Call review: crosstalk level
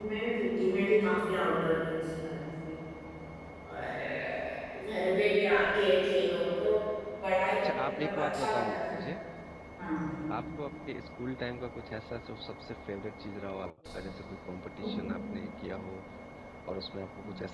present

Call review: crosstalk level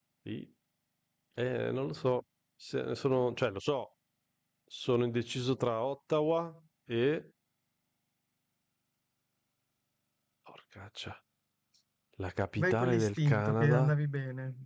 present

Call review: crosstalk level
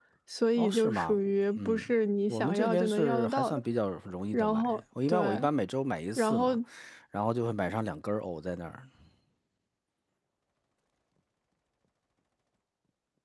present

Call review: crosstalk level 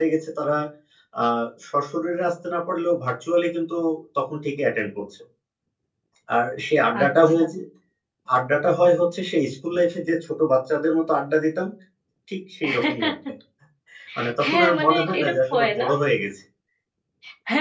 present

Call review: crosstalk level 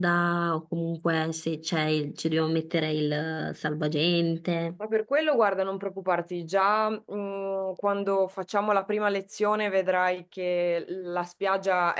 none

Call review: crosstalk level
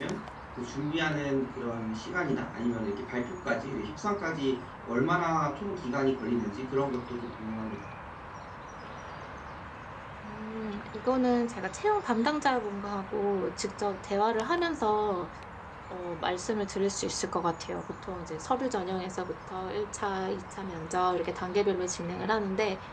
none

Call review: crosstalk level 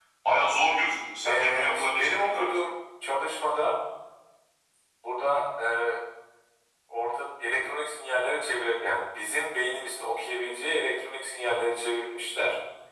present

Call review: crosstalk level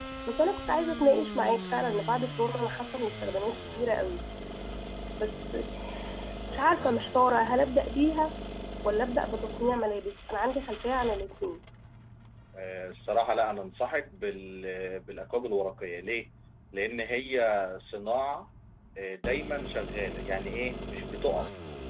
none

